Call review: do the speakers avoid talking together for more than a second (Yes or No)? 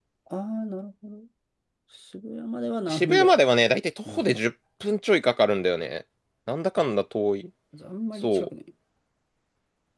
Yes